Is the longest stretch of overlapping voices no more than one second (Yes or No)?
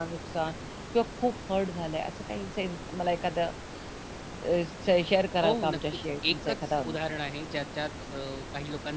No